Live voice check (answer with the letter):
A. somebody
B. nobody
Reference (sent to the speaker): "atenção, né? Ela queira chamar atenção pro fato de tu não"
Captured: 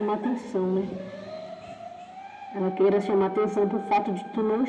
B